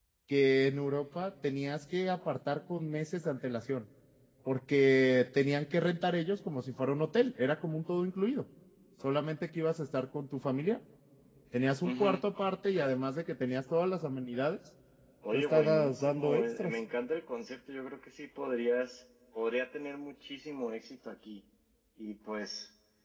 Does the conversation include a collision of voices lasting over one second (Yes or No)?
Yes